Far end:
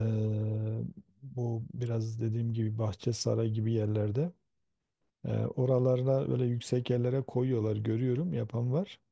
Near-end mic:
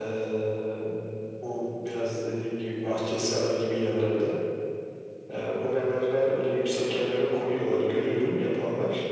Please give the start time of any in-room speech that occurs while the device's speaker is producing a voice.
none

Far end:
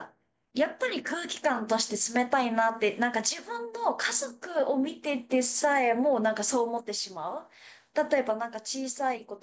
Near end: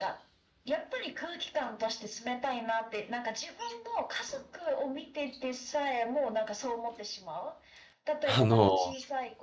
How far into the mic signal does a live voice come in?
8 s

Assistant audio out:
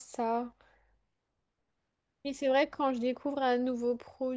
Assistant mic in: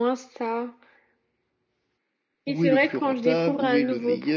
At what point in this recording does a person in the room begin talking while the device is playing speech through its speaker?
2 s

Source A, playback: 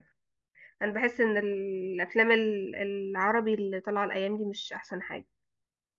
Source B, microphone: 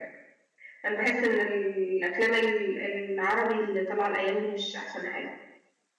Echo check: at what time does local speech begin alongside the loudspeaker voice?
none

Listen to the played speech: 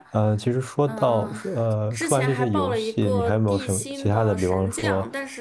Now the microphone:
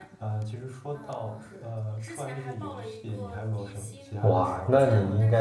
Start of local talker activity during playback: 4 s

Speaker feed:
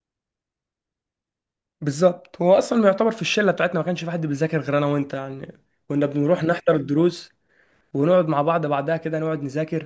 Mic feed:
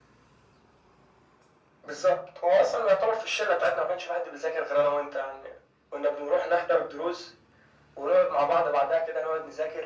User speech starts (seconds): none

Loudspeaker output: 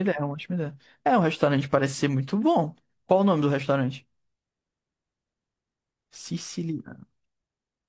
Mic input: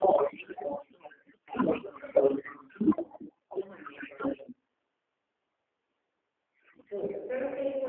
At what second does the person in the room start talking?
7 s

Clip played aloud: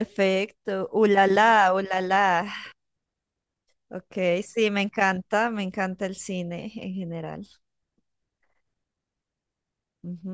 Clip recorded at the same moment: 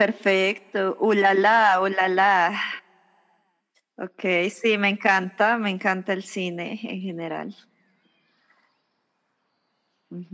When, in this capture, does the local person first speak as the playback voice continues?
none

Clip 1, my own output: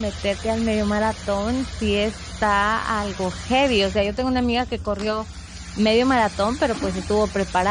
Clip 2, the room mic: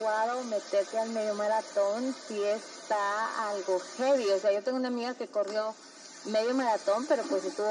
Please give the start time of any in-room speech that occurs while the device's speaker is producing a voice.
none

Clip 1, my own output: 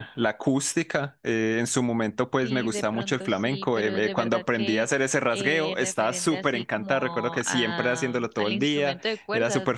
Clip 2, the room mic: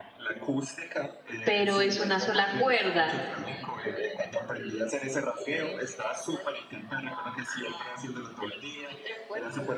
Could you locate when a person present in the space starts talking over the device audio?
1 s

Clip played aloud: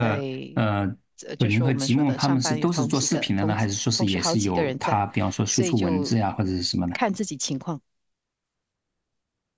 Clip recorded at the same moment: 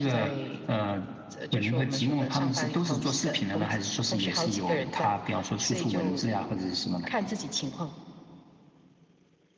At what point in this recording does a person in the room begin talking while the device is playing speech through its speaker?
none

